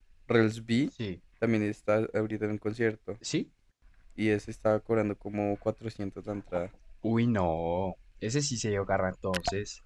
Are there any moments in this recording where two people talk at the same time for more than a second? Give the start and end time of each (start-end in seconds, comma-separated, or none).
none